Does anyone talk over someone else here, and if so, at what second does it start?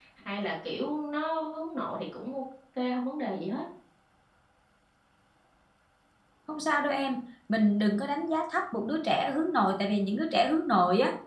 none

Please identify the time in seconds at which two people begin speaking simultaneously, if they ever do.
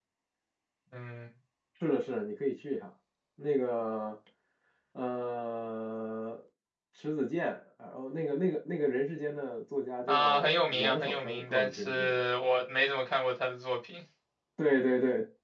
10.1 s

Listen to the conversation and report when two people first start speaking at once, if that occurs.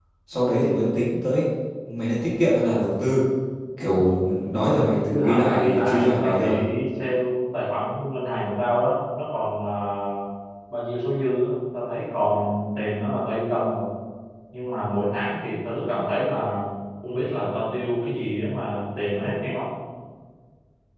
5.1 s

